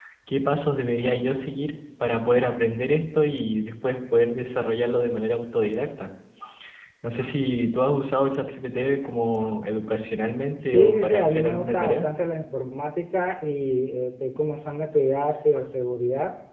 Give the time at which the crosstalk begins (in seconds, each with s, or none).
10.7 s